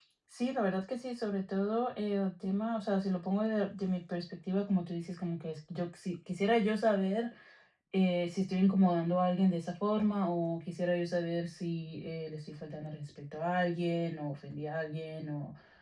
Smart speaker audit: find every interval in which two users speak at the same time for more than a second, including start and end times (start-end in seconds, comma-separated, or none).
none